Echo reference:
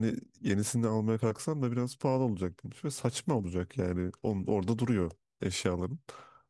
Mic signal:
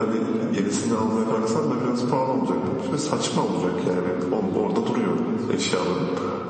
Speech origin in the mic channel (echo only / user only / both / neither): both